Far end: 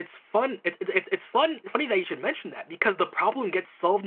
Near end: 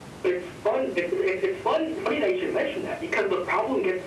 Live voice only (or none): none